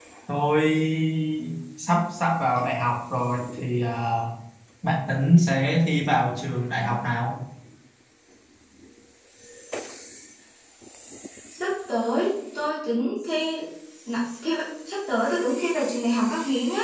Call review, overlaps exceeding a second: none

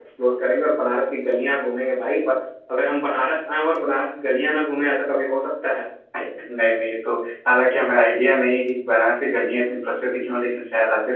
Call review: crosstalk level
none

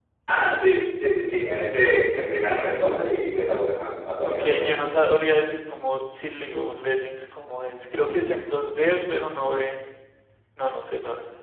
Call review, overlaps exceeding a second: none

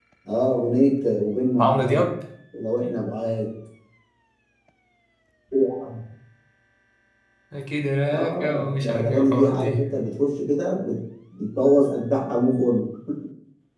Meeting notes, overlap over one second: present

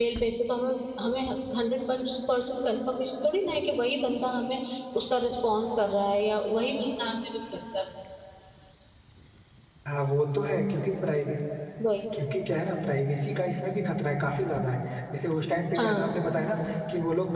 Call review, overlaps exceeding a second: none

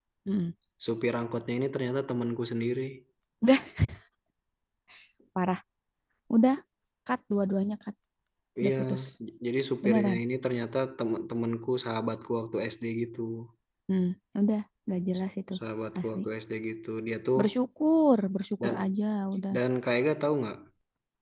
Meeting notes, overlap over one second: none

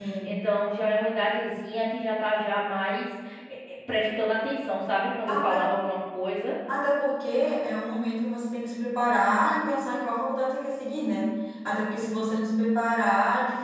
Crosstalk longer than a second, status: none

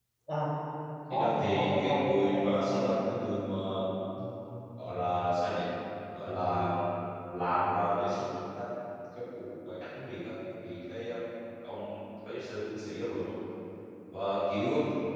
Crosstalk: present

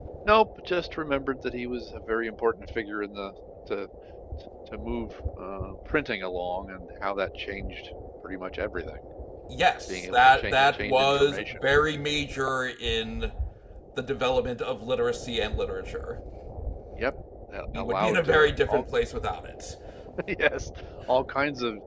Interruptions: present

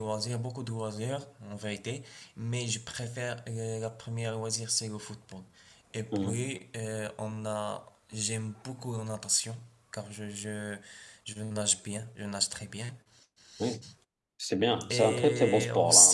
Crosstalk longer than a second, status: present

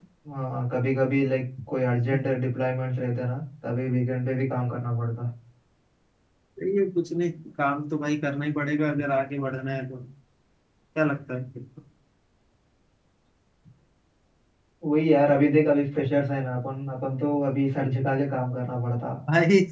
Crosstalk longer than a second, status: none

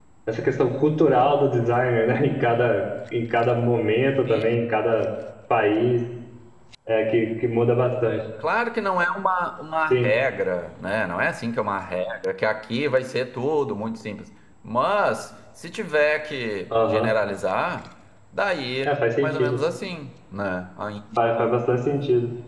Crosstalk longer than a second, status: none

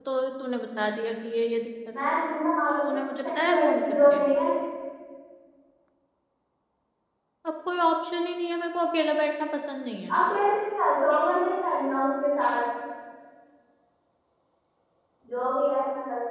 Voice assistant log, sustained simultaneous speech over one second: present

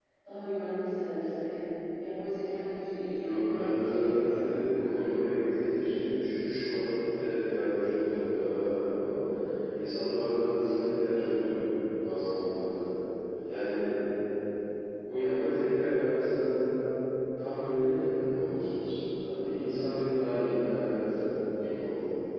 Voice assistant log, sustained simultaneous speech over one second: present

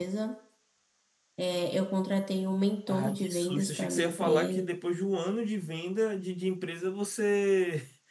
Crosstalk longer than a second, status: present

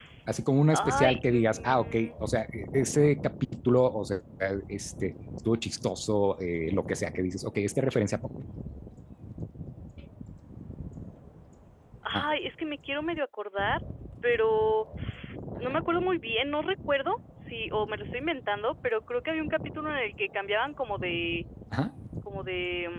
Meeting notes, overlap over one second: present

